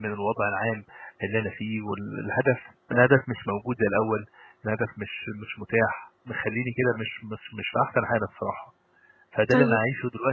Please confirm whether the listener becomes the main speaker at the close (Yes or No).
No